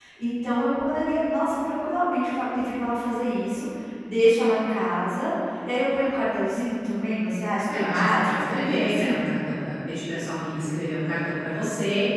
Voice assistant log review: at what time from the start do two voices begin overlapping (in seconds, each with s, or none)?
7.7 s